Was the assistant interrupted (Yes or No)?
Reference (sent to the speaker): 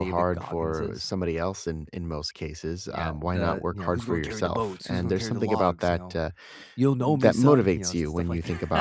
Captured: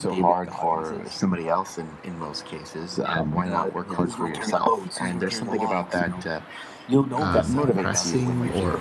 Yes